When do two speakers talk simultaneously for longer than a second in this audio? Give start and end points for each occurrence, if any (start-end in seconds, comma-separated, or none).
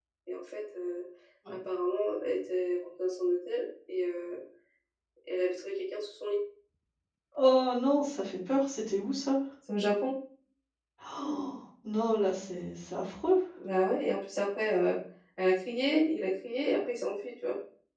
none